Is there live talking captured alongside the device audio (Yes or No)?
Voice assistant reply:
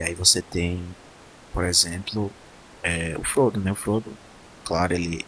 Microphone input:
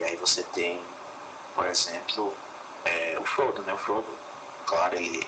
No